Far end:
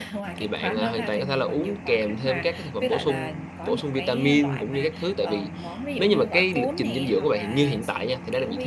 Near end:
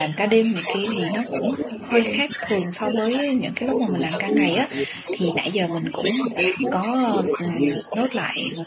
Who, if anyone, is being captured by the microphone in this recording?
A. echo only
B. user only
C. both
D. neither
C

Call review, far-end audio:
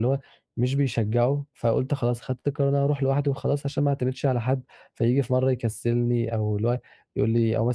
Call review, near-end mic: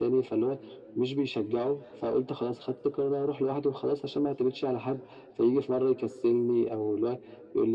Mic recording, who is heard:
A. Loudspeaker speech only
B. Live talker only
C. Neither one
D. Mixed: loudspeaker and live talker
A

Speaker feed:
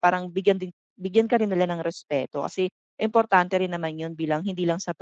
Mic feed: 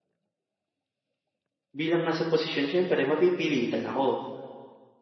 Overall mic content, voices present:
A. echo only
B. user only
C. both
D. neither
B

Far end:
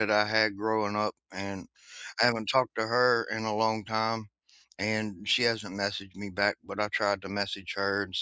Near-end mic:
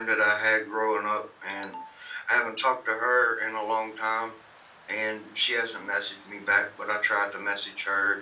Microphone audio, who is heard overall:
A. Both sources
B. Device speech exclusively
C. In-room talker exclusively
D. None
B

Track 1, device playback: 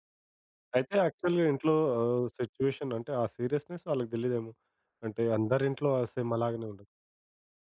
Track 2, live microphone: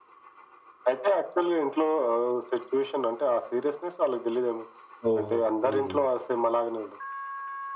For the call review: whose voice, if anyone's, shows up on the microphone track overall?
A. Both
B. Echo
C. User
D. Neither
A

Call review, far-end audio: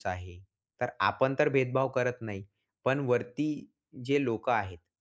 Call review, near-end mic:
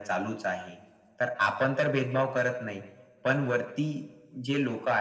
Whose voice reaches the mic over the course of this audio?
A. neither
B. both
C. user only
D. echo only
D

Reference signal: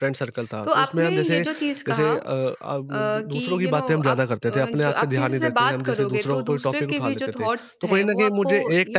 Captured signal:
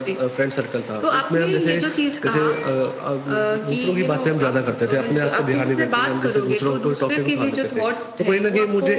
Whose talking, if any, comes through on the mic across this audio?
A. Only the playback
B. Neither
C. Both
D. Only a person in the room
A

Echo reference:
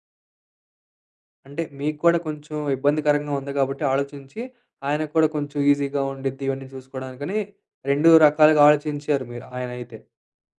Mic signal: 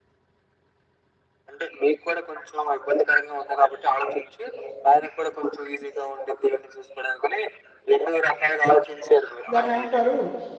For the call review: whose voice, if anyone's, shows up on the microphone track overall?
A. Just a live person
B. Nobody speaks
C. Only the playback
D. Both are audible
D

